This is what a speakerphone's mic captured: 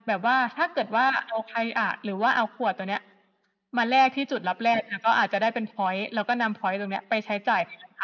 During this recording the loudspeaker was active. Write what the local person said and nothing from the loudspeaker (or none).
none